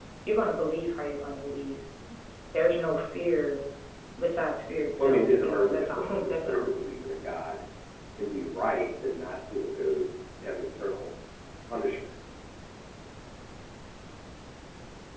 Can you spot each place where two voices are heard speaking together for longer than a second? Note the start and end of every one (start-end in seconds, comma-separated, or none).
5.0-6.7